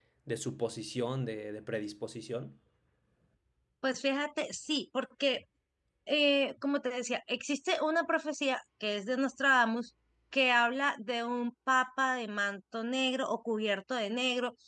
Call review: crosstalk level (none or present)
none